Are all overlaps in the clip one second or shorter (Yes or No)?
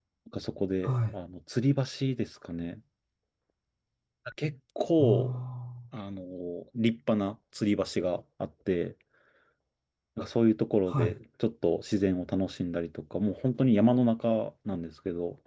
Yes